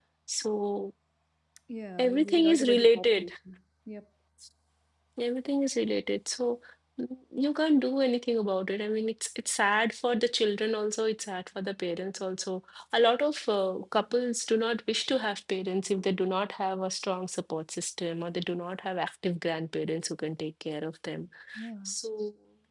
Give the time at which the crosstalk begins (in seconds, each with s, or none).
2.0 s